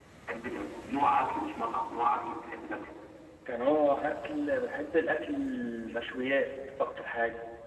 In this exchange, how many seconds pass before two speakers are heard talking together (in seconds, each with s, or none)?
none